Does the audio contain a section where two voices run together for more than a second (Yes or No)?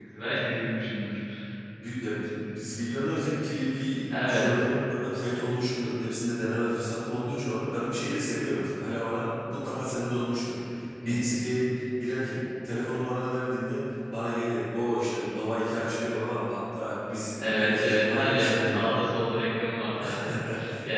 Yes